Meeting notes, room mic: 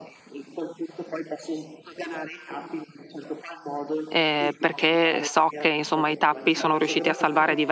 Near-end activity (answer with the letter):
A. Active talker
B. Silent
A